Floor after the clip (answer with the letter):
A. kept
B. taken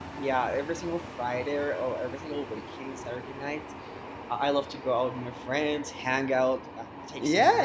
B